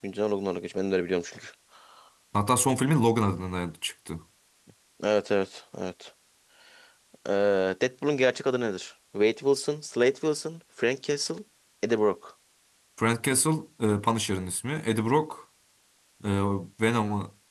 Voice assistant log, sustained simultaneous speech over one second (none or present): none